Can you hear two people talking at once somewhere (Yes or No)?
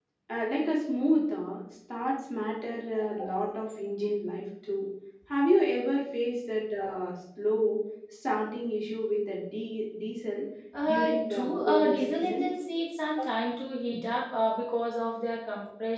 Yes